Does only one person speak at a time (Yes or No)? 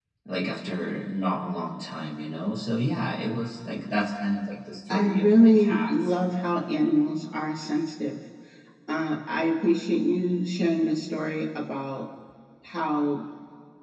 No